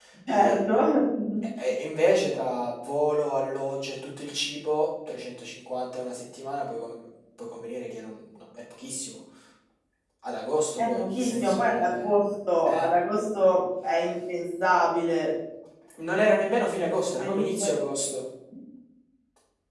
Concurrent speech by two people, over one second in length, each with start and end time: 10.8-12.1

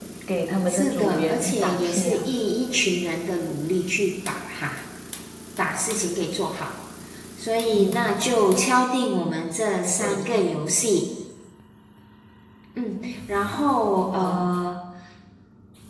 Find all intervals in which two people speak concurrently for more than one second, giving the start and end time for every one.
0.7-2.2

